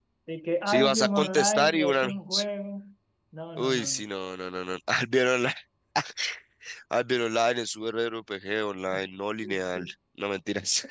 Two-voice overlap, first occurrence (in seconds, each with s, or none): 0.7 s